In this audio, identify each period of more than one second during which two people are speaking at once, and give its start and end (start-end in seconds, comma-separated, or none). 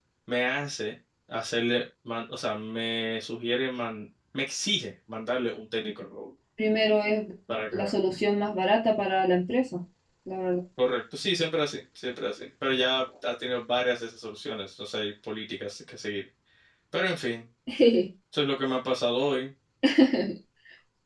none